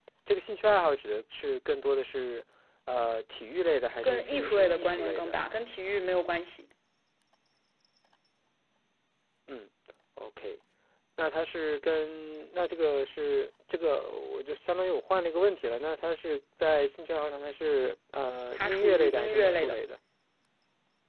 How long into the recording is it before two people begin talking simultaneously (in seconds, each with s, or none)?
4.0 s